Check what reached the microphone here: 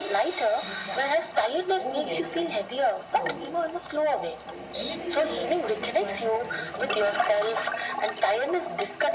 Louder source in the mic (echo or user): echo